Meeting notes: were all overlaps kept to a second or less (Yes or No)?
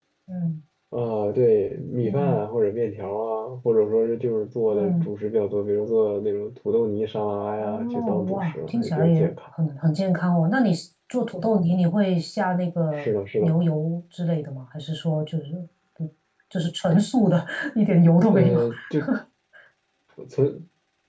No